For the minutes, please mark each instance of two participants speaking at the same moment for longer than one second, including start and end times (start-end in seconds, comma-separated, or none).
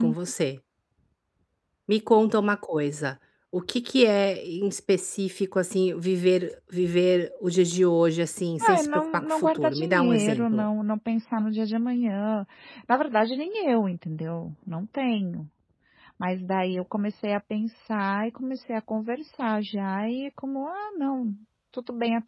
8.6-10.6